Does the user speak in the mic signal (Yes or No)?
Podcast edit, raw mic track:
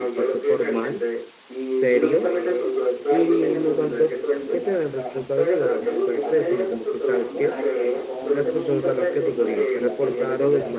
Yes